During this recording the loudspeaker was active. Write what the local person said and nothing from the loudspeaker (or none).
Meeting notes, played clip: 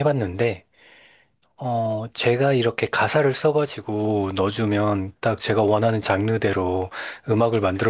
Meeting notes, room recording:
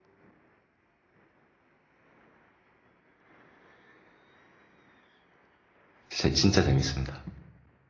진짜, 진짜 재밌습니다.